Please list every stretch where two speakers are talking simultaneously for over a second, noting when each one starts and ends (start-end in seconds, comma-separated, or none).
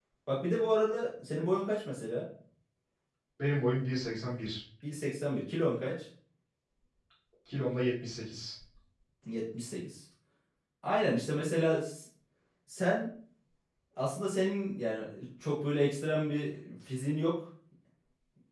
none